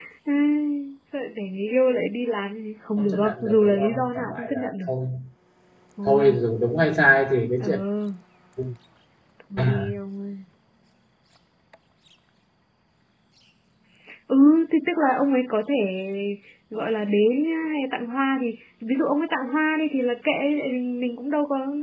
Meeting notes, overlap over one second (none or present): present